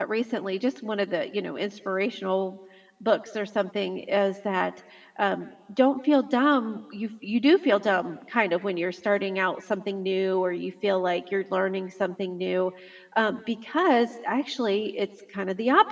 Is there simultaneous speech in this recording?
No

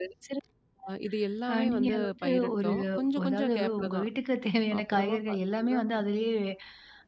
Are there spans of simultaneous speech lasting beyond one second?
Yes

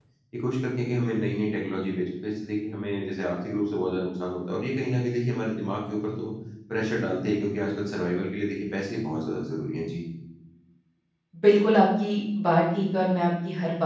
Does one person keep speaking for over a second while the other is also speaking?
No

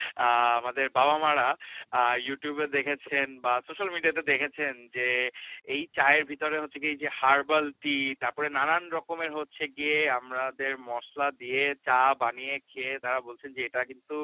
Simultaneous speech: No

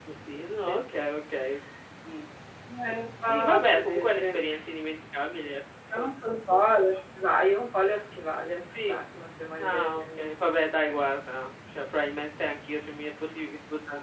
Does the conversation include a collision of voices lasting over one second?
Yes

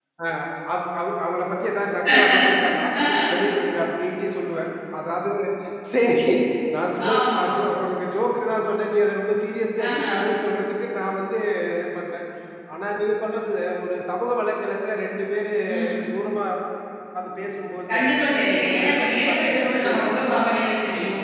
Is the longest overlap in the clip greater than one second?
Yes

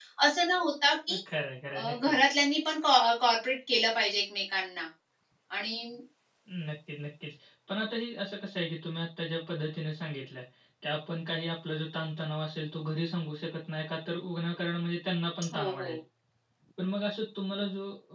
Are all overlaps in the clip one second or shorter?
Yes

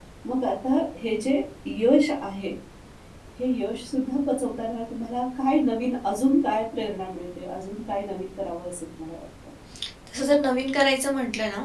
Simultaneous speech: No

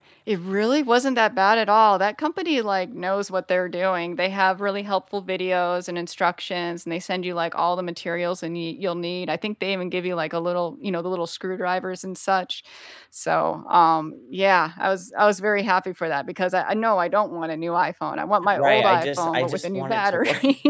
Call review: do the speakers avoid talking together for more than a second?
No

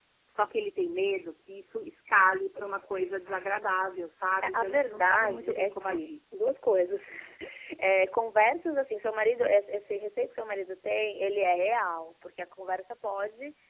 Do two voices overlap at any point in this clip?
Yes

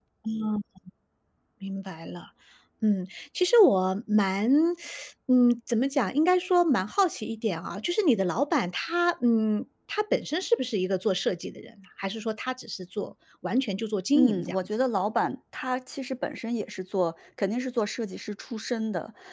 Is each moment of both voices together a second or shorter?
Yes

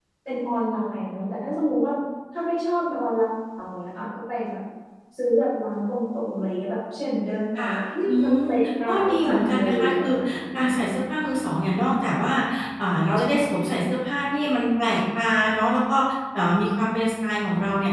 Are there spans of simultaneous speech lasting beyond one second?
Yes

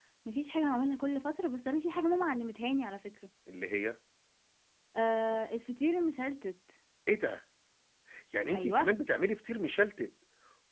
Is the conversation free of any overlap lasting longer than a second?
Yes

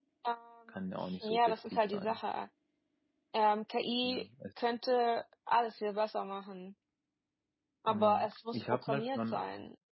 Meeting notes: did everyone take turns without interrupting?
No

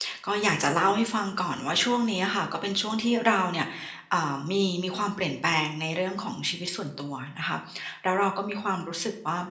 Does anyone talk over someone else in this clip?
No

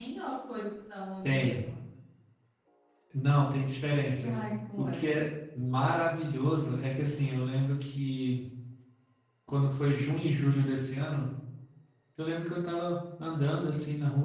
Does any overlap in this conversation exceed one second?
No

